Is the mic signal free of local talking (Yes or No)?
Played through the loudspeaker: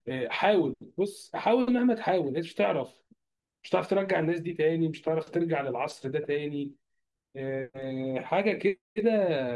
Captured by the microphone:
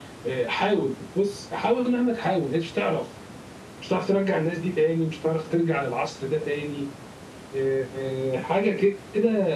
Yes